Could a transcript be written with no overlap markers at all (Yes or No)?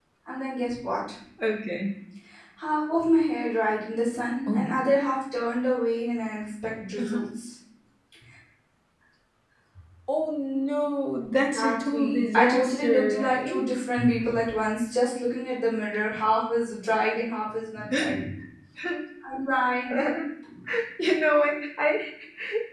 No